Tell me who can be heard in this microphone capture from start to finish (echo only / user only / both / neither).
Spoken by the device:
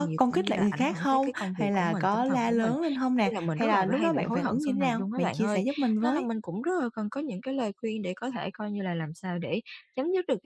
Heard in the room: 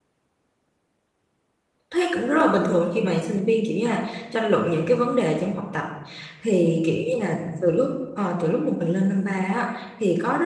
user only